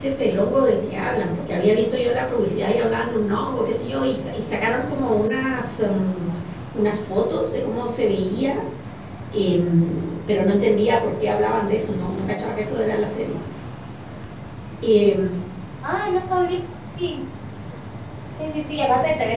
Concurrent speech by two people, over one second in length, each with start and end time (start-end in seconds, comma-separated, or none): none